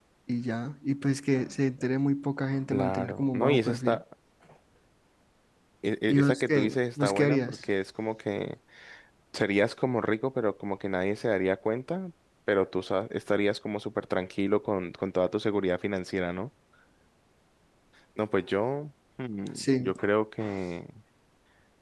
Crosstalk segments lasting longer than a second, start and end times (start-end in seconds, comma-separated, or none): 2.7-4.0, 6.1-7.6